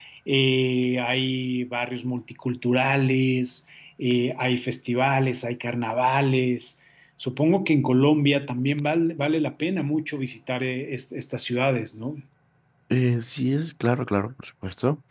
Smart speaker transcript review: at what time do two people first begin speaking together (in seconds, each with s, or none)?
none